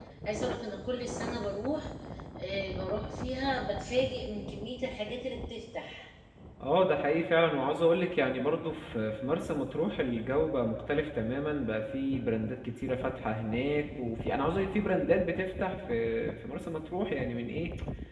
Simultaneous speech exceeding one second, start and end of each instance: none

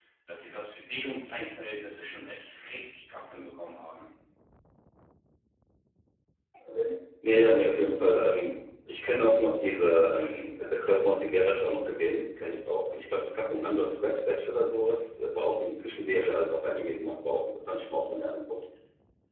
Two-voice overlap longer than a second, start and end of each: none

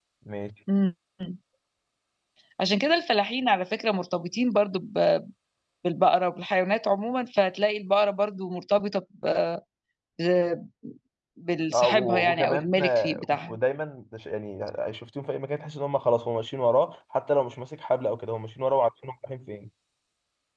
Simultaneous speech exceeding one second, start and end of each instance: 11.7-13.6

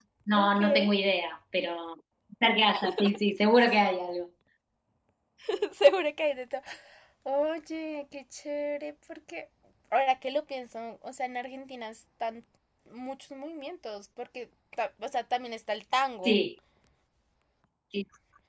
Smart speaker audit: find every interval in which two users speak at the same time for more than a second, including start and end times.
none

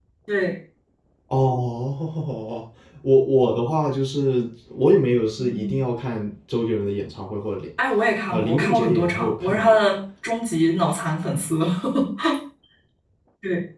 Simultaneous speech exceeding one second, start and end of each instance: 8.3-9.8

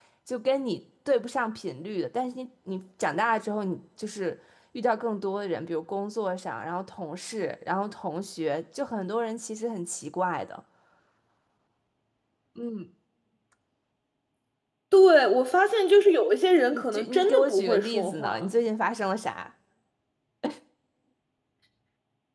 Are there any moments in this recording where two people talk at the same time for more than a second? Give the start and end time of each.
16.7-18.4

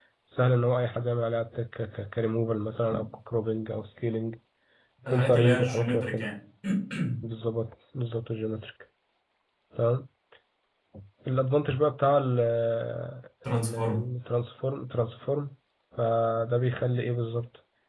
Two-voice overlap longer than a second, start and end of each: 5.1-6.3

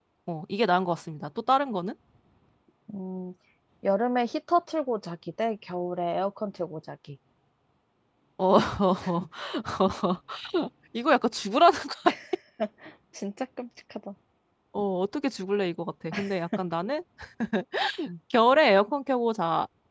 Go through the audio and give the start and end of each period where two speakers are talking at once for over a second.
none

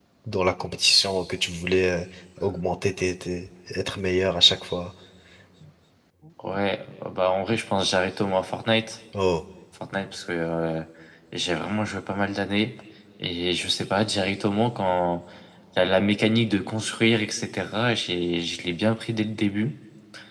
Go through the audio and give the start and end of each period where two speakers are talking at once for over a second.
none

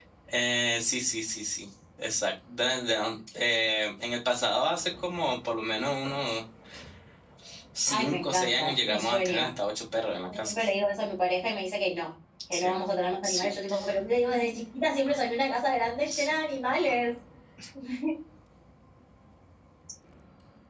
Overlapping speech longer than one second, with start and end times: 7.9-9.5

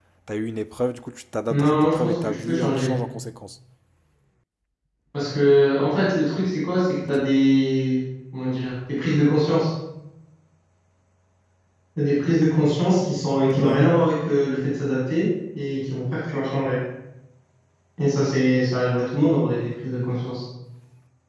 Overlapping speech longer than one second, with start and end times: 1.5-2.9

